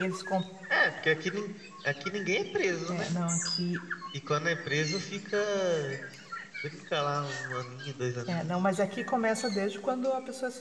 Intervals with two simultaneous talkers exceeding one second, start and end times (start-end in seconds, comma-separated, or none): none